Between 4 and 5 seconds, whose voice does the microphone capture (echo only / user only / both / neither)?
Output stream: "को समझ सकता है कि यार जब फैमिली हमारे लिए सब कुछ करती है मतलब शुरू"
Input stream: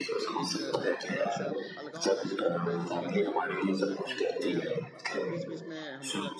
both